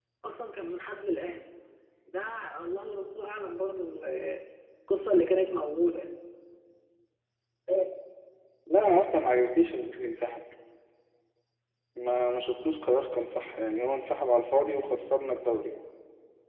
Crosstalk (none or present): none